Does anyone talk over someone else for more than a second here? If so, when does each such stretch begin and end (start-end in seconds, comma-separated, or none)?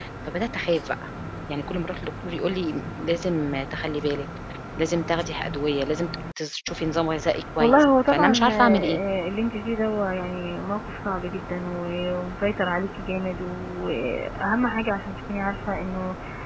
7.6-9.0